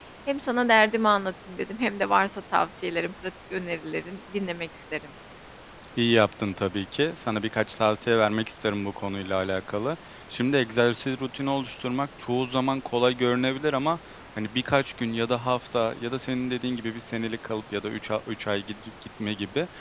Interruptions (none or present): none